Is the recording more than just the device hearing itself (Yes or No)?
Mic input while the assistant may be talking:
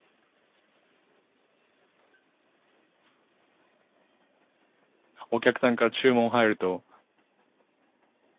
Yes